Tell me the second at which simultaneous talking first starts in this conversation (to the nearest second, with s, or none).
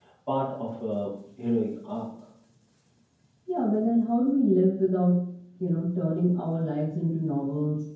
none